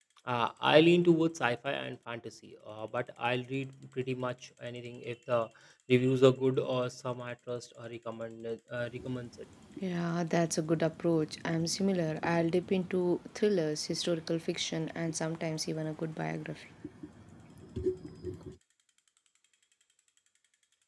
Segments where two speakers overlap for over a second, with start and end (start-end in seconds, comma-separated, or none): none